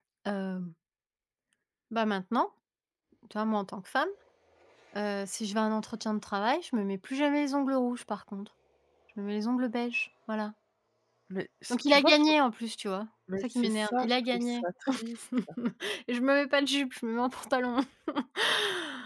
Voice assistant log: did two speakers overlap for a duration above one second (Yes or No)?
Yes